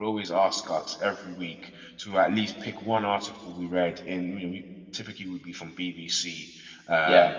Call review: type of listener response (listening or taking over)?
listening